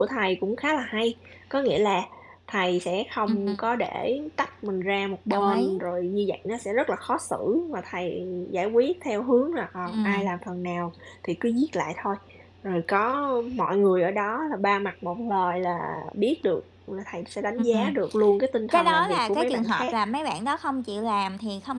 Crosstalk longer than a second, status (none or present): present